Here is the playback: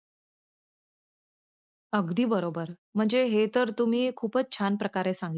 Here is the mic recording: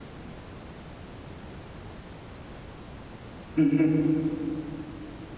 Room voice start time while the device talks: 4 s

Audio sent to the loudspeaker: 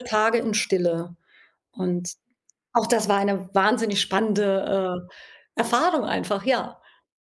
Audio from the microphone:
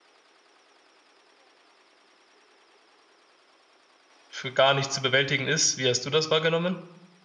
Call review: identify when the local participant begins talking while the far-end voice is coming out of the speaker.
4 s

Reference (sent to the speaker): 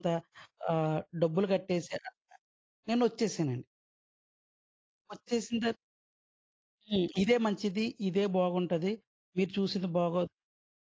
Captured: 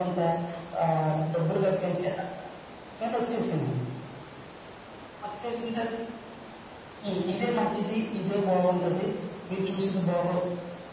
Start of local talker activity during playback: none

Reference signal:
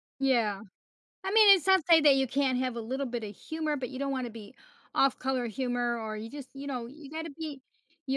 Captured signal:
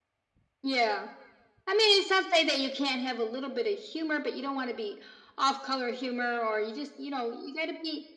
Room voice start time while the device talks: none

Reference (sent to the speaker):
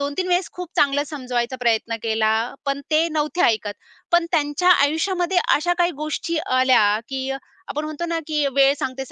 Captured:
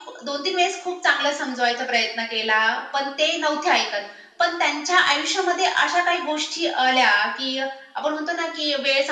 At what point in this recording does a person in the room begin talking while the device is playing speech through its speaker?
none

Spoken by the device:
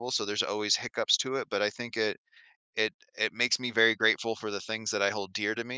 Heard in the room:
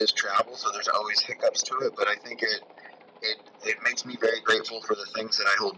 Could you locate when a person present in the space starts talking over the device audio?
none

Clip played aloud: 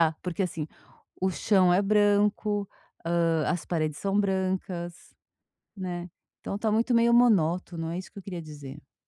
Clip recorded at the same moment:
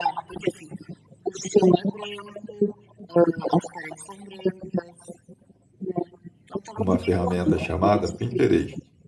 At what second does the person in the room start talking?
7 s

